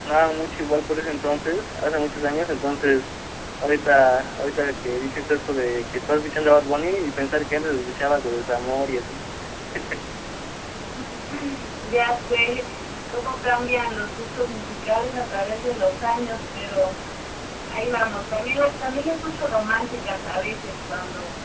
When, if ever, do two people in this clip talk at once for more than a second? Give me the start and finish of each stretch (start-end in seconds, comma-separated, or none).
none